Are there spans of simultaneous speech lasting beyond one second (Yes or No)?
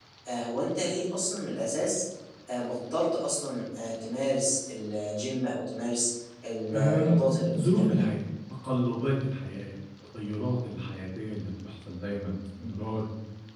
Yes